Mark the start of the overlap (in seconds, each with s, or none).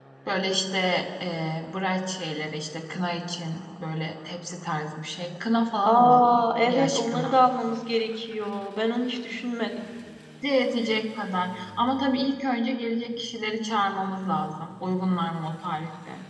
5.8 s